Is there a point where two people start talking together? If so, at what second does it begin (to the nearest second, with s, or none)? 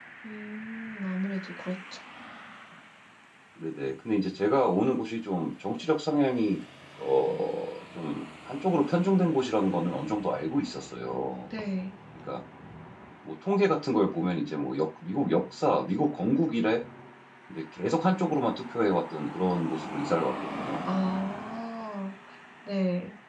none